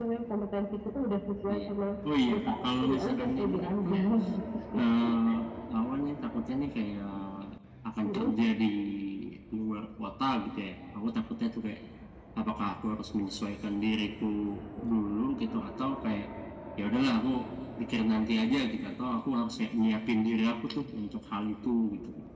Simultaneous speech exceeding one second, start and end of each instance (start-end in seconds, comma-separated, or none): 2.3-3.9